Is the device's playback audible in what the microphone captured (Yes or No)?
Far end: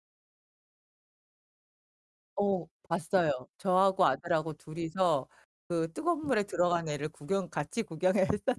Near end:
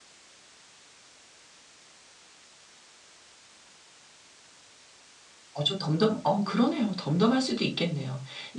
No